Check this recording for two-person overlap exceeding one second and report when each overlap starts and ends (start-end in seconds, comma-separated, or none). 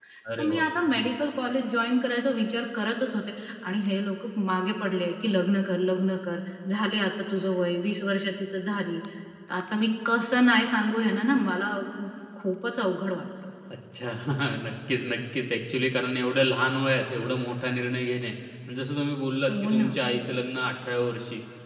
none